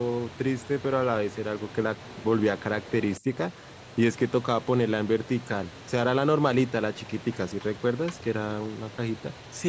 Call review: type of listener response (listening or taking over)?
taking over